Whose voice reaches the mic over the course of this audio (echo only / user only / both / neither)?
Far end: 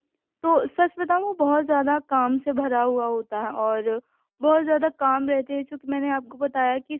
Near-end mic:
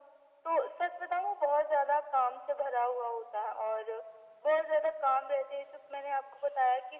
echo only